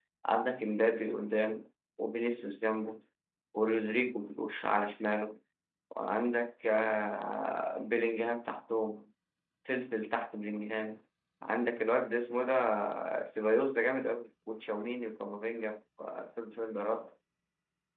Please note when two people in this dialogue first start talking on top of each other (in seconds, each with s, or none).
none